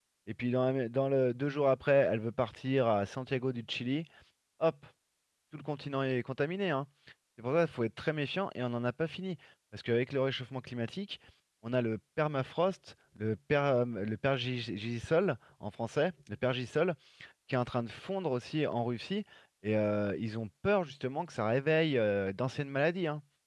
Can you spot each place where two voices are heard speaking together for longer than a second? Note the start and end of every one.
none

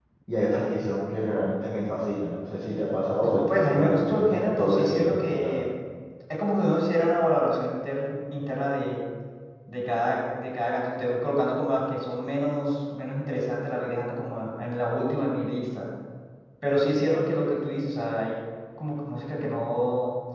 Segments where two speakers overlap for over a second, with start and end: 3.2-5.6

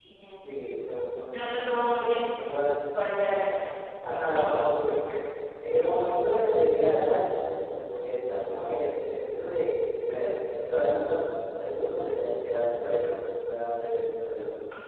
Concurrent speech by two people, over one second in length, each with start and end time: none

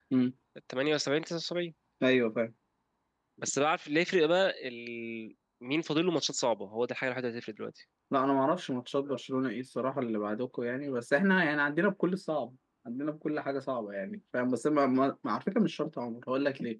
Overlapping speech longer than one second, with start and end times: none

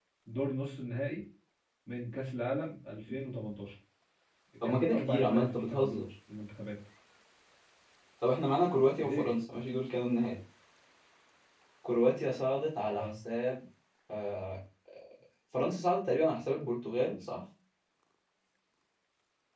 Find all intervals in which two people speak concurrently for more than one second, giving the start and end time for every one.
4.7-6.0

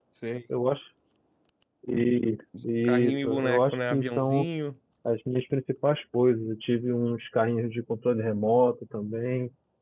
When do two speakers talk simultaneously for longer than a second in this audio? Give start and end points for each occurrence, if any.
3.1-4.5

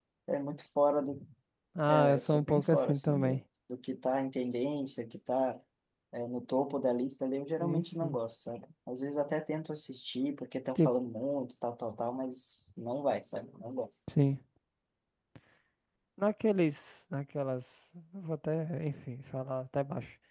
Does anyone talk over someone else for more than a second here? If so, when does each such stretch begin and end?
1.9-3.4

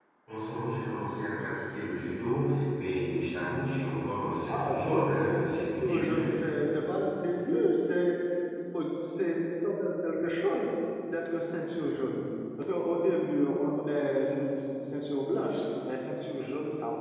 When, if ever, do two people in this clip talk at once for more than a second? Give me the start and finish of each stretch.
4.5-6.3

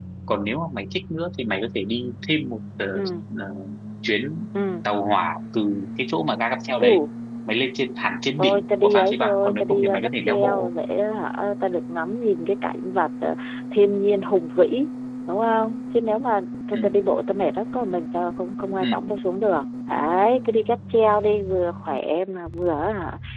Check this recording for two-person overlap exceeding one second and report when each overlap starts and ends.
8.4-10.7

